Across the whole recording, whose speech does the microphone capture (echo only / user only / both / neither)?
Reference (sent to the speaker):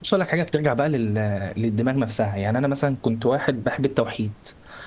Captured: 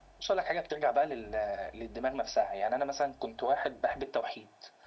echo only